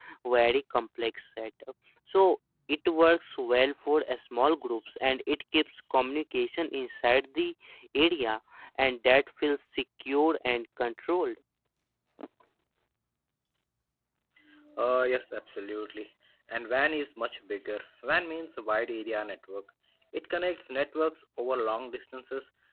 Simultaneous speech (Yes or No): No